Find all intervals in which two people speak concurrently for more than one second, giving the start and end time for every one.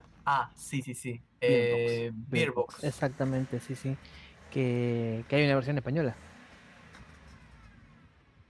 1.4-2.9

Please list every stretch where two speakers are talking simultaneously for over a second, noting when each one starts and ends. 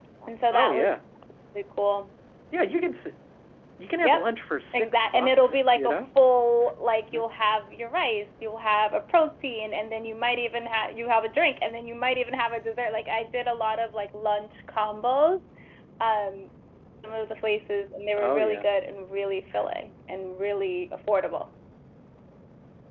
4.7-6.1

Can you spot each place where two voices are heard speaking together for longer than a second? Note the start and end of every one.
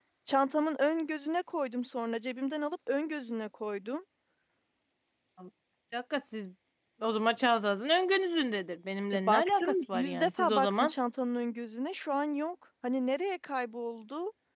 9.1-10.9

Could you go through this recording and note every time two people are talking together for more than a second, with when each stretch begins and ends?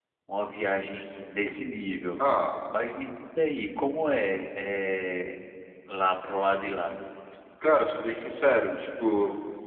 none

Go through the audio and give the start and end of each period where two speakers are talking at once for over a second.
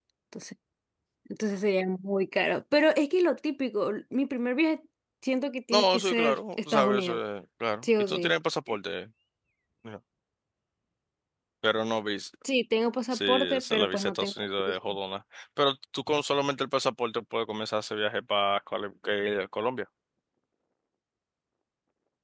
5.7-7.2, 13.1-14.8

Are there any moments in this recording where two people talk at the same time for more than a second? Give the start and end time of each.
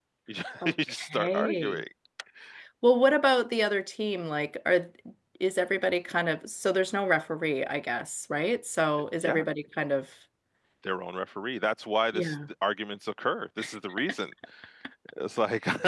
0.6-1.8

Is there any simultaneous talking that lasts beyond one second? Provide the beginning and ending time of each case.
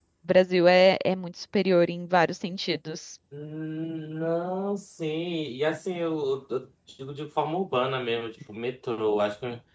none

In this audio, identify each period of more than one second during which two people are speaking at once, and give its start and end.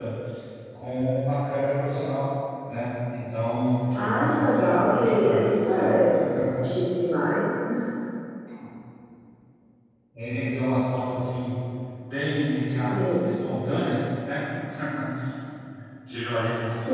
4.0-5.9

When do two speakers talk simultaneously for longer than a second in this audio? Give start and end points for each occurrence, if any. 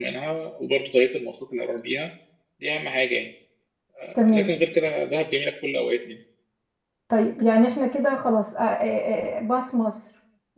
none

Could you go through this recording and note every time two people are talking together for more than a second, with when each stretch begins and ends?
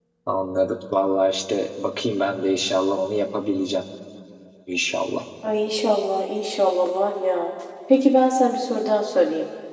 none

